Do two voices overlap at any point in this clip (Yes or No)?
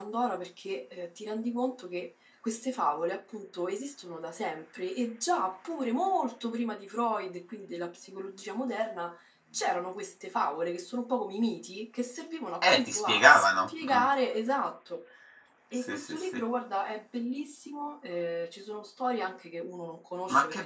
Yes